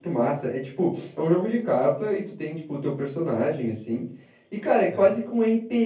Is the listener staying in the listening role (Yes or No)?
Yes